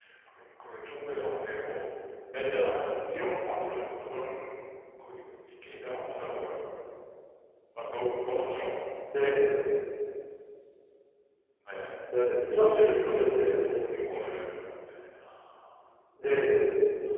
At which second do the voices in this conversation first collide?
12.4 s

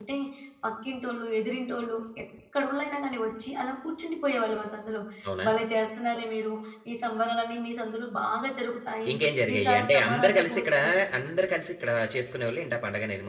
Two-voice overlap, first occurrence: 9.5 s

